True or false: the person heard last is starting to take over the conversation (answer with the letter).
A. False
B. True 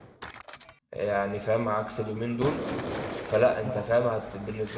A